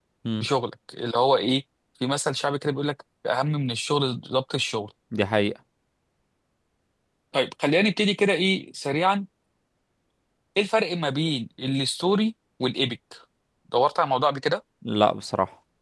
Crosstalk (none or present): none